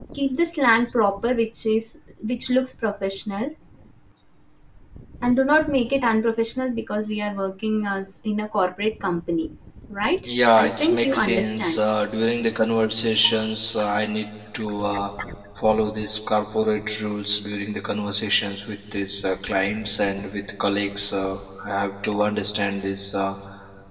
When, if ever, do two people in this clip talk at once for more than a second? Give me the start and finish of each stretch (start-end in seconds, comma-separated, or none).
10.2-11.8